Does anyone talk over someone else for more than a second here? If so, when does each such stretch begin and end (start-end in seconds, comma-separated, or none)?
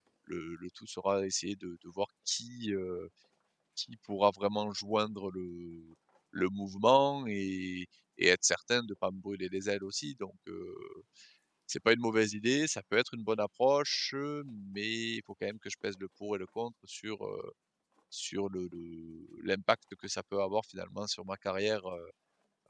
none